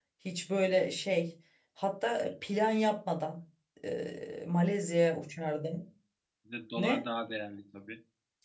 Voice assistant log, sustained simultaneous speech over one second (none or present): none